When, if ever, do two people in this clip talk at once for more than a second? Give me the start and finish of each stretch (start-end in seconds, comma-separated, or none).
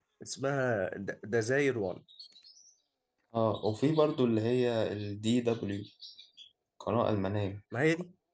none